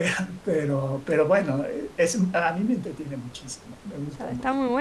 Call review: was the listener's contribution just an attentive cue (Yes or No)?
No